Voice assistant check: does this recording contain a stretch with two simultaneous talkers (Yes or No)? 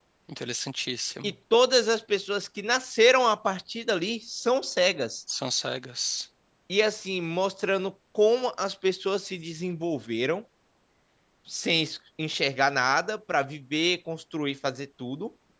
No